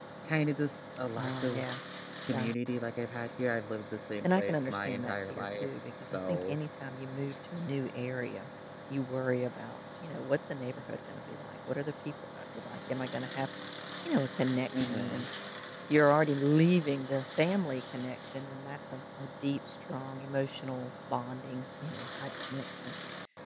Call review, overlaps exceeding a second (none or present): present